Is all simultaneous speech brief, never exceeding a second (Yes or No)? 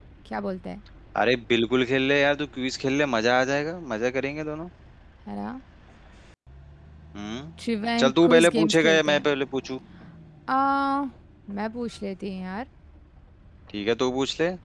No